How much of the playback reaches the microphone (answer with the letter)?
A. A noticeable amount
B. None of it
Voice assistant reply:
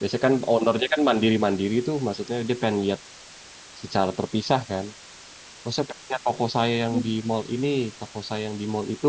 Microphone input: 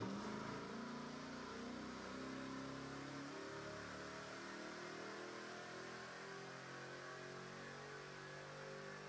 B